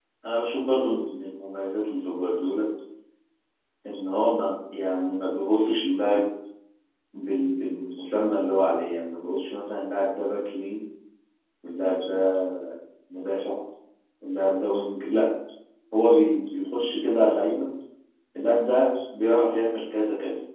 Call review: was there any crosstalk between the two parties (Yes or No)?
No